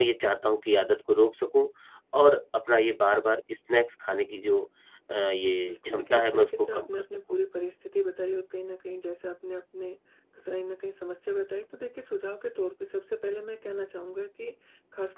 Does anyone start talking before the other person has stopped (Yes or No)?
Yes